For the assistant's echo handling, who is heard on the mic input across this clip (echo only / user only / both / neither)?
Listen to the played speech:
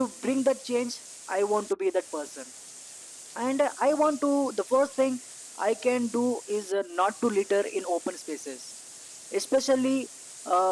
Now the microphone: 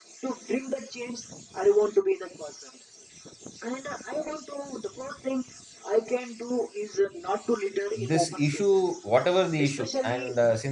both